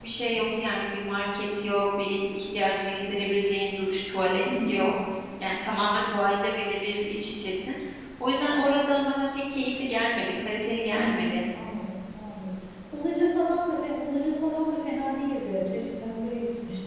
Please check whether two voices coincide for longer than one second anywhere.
No

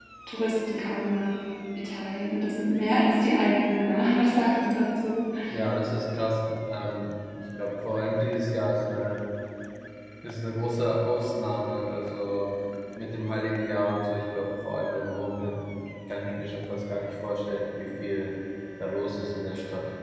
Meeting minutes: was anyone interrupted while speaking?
No

